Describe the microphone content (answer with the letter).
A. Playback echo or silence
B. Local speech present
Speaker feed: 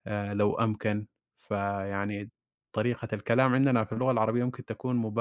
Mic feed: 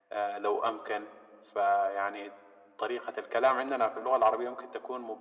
A